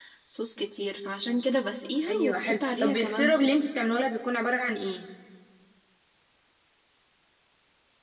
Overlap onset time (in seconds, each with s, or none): 2.1 s